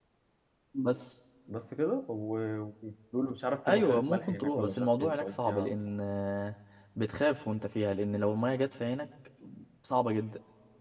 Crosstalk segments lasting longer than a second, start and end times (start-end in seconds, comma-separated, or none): 3.7-5.7